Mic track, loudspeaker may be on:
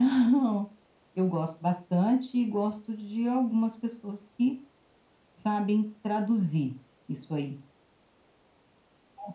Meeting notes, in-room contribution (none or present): none